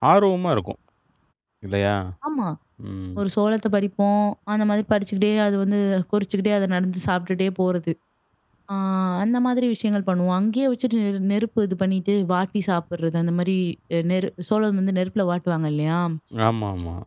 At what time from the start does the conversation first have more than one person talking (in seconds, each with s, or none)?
none